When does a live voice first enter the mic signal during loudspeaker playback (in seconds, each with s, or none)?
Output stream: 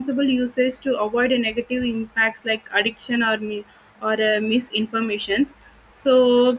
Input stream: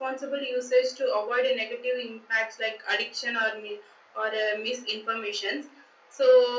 none